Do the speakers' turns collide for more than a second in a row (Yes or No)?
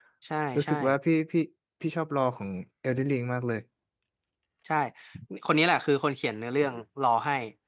No